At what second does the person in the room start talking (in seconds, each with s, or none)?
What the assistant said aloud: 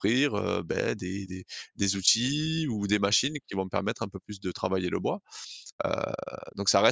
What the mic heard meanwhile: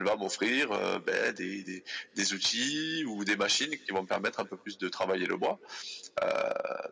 none